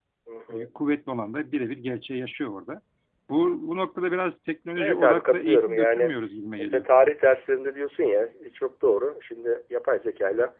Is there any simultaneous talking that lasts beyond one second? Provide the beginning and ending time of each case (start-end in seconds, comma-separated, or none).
4.8-6.1